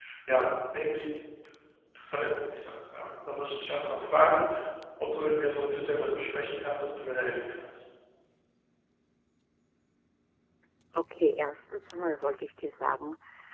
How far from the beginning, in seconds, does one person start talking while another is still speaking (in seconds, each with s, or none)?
none